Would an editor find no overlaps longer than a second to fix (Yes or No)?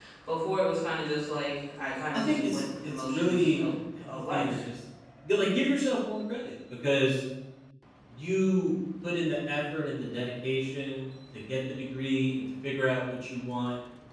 No